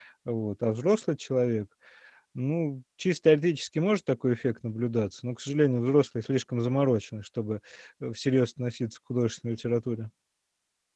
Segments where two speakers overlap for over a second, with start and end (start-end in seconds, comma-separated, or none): none